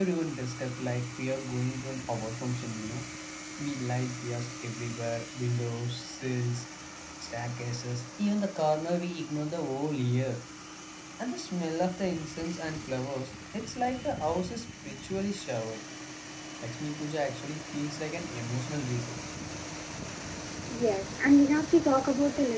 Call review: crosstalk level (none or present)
none